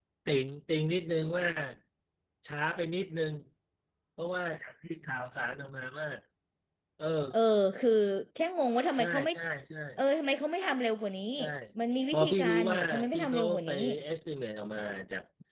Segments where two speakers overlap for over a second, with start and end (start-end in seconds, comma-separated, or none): 12.1-13.7